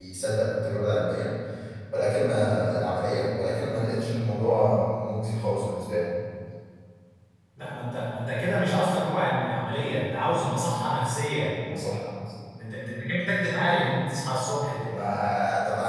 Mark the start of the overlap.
none

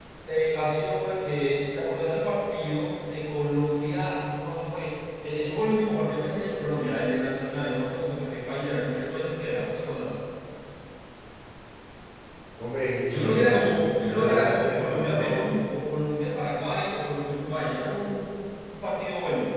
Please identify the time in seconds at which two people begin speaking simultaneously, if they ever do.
13 s

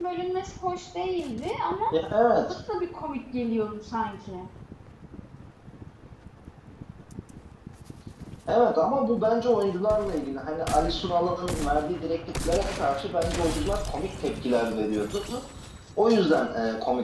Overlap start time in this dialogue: none

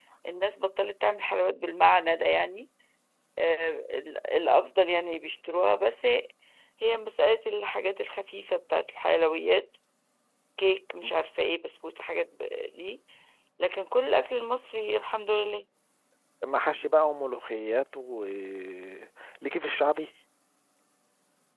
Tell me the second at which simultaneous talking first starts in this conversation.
none

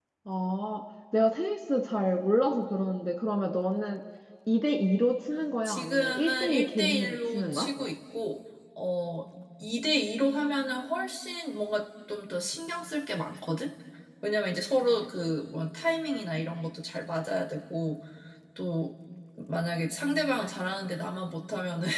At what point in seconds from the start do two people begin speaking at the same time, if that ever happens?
6 s

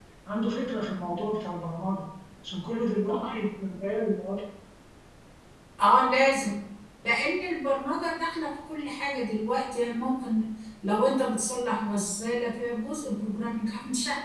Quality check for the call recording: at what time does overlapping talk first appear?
none

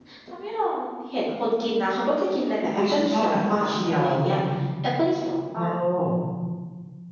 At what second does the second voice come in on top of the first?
3 s

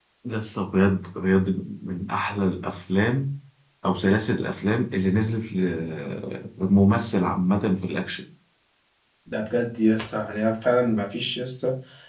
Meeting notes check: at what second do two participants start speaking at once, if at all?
none

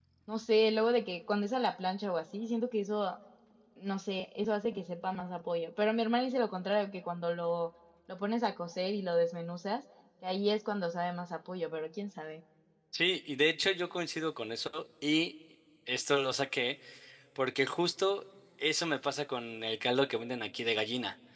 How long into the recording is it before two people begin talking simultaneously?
none

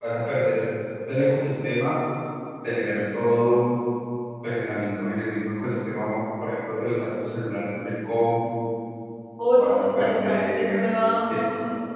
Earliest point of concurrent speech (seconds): 10 s

